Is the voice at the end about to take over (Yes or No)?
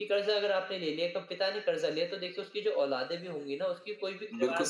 Yes